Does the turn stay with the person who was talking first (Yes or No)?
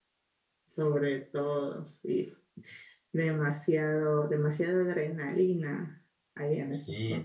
No